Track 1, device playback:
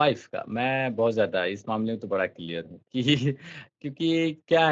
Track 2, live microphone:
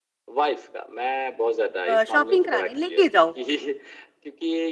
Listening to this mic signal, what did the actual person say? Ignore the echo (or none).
अ, शॉपिंग कराने लेके जाओ।